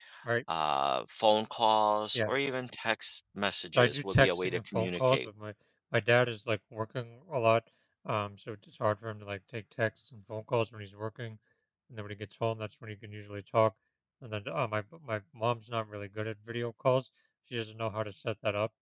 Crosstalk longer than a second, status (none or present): present